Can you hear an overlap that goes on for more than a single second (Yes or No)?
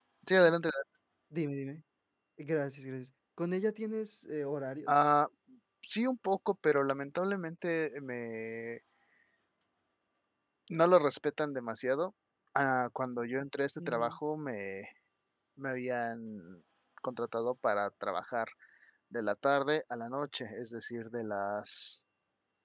No